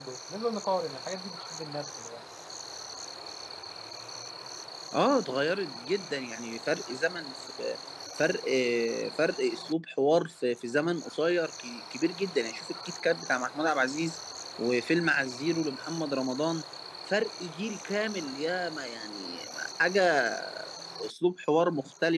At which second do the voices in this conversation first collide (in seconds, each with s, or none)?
none